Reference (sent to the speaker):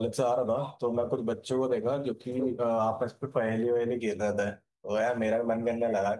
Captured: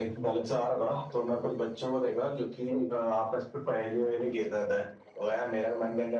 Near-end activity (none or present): none